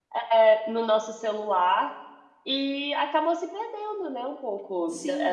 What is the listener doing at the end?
taking over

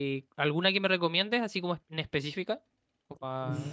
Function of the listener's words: taking over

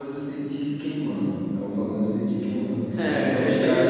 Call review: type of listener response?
taking over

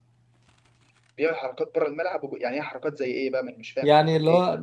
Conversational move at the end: taking over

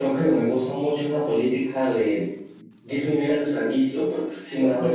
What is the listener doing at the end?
listening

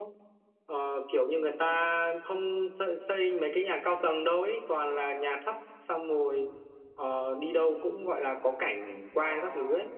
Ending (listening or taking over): listening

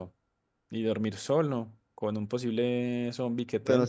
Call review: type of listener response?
taking over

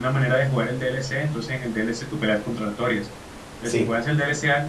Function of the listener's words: listening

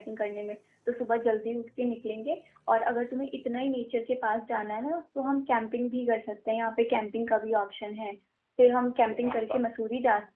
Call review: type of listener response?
listening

